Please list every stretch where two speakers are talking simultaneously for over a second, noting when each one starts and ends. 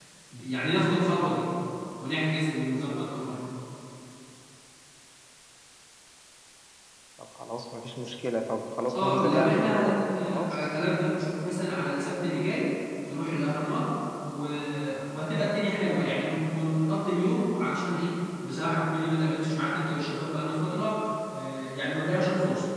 8.9-10.7

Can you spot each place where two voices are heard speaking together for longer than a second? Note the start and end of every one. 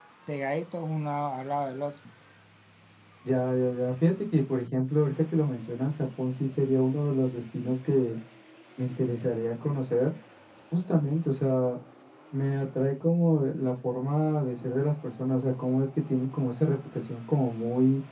none

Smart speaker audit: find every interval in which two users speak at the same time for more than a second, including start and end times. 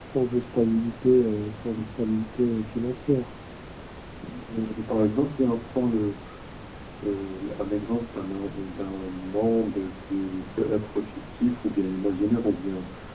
none

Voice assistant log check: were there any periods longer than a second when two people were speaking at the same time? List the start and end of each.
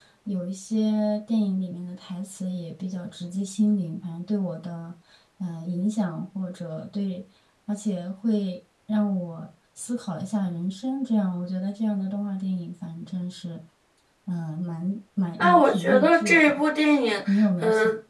15.4-16.6

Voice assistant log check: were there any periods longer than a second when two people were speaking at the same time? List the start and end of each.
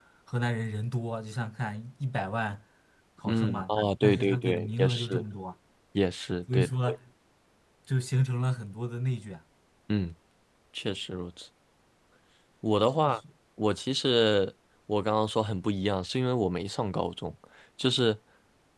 3.3-5.2

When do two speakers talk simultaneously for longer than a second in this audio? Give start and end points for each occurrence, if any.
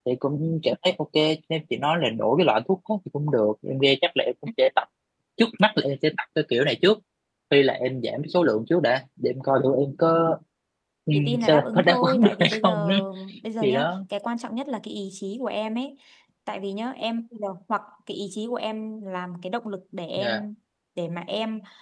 11.1-12.9

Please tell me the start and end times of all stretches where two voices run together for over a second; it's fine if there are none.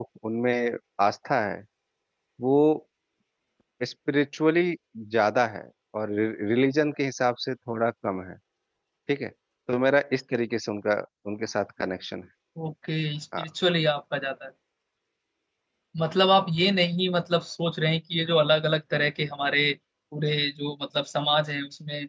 none

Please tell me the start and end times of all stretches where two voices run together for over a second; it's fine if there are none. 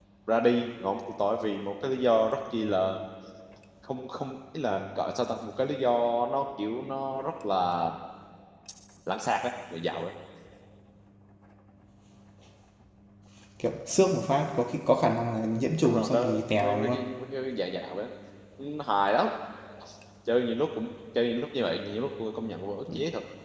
15.8-17.0

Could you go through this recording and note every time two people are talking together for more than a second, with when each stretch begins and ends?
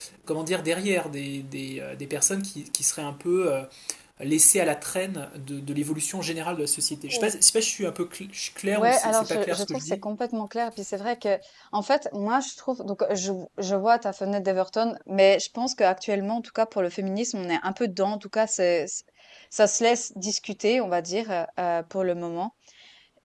8.8-10.0

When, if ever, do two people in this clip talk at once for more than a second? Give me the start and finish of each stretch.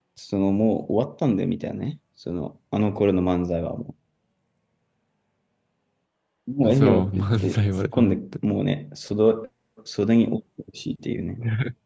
6.6-8.2

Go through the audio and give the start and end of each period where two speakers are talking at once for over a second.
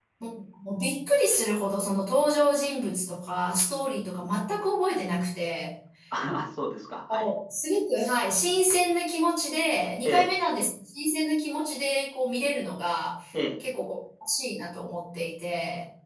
none

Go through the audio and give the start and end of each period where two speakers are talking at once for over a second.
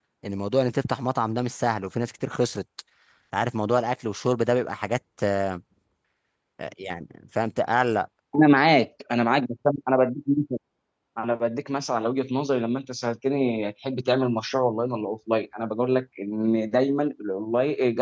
none

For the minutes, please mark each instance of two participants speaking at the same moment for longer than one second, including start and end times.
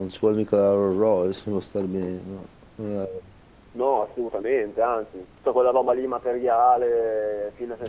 none

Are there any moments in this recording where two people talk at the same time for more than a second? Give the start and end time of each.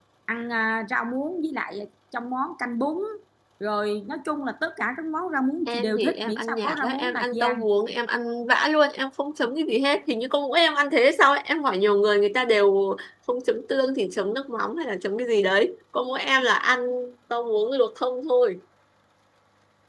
5.7-7.7

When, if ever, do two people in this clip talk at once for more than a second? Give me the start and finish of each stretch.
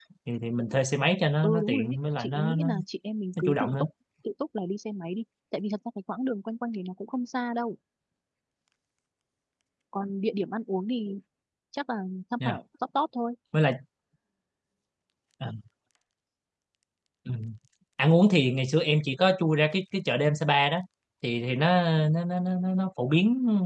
1.4-2.6

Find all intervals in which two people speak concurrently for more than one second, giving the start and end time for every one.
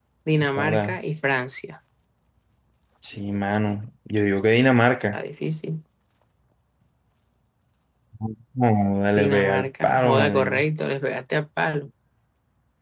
9.2-10.6

